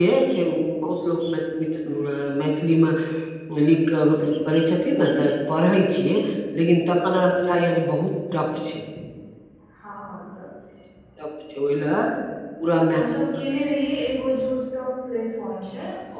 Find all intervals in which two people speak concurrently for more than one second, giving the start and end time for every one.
none

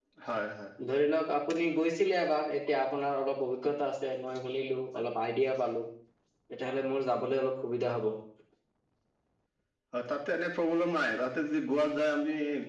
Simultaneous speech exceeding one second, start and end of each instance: none

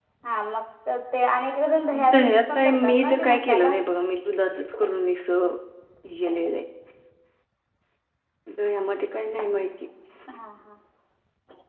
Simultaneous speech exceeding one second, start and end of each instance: 2.1-3.7

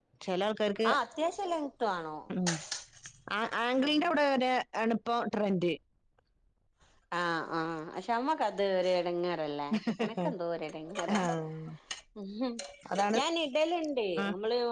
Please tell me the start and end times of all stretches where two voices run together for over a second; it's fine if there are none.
none

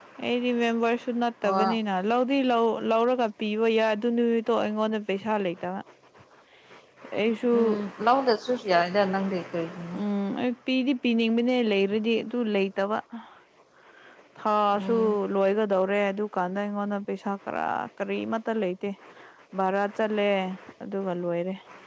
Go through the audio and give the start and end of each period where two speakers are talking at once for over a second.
none

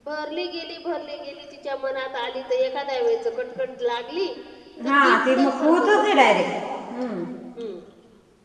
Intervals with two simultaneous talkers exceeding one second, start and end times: 4.8-6.3

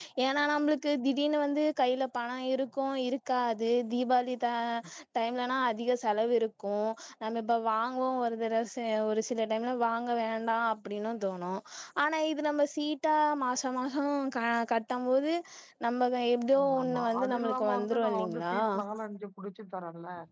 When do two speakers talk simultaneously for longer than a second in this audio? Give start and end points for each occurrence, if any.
16.6-18.6

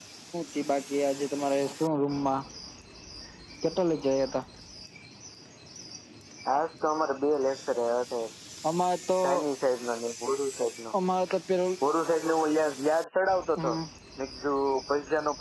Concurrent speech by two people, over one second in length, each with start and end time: none

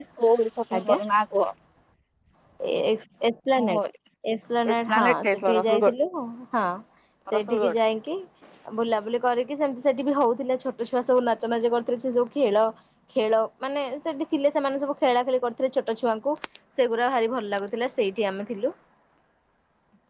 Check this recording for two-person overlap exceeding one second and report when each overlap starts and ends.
4.7-5.9

